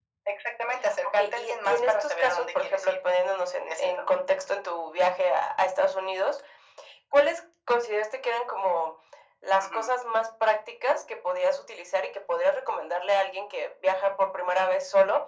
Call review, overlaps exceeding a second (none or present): present